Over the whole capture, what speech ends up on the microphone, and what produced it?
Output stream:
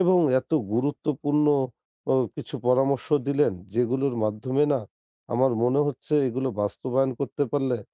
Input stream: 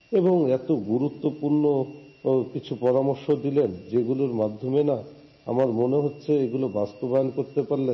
echo only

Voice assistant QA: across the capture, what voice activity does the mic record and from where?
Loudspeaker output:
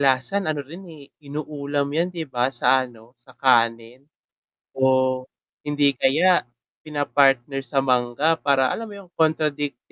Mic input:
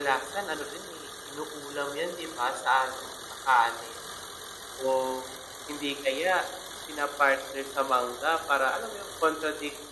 echo only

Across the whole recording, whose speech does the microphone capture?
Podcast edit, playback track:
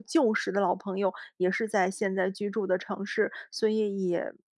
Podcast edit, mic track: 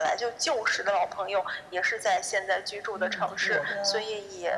both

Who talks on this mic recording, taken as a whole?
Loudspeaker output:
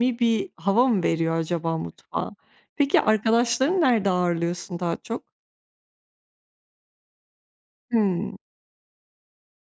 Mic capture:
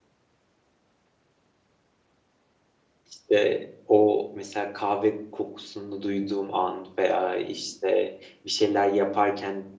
user only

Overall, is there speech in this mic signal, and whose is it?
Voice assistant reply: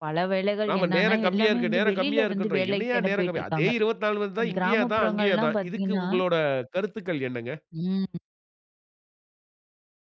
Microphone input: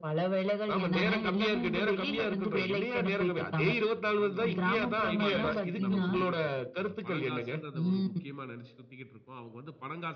both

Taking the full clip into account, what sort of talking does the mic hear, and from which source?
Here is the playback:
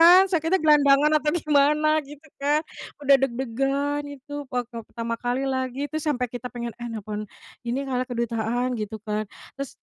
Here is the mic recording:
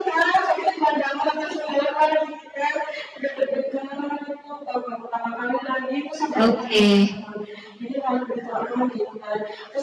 both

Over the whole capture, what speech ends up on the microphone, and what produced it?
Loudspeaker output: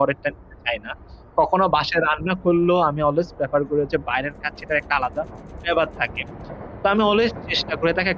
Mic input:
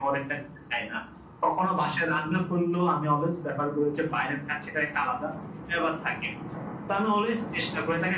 echo only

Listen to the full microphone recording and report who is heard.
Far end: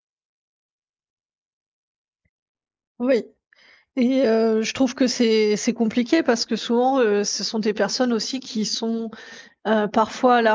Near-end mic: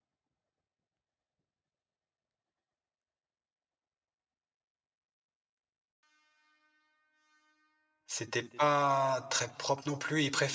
user only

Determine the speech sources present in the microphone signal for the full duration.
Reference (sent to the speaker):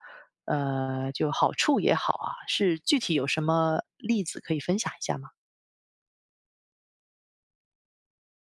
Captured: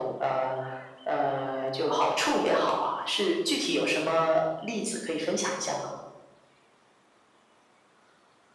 echo only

